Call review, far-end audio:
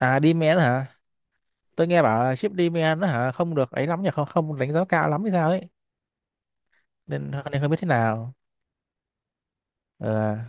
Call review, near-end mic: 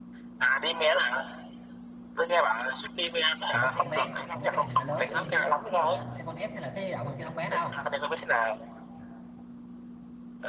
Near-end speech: present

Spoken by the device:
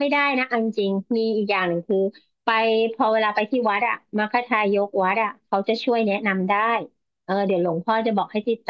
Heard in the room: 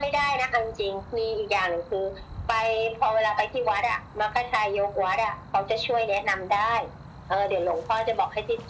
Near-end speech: none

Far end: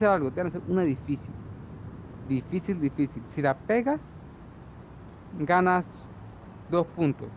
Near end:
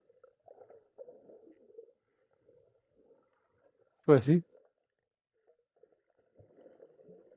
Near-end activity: present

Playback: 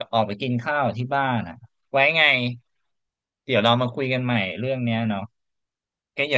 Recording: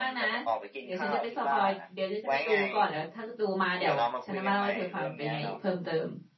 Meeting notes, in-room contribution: present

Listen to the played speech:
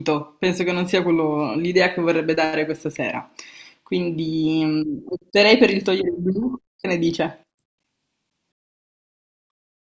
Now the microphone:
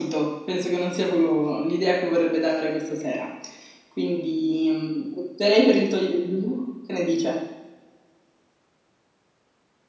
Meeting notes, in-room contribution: none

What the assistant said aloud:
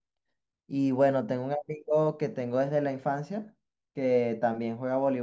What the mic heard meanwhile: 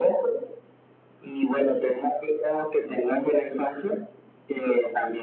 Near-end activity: none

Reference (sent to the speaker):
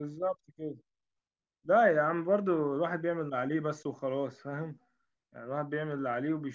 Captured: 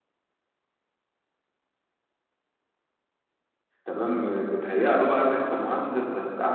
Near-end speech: present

